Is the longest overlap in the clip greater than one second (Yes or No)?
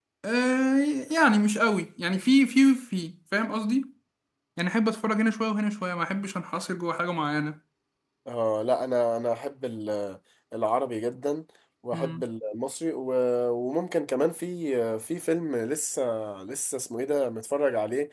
No